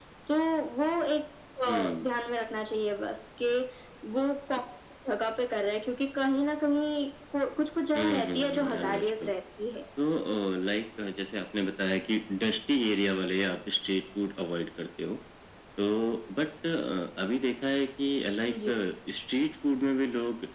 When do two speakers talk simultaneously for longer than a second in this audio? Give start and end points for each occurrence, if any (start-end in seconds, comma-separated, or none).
7.9-9.3